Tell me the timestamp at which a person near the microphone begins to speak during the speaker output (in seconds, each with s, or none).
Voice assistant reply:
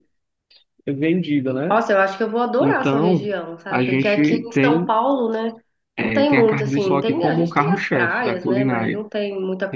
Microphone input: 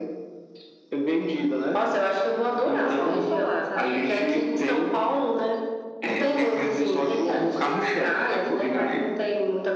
2.8 s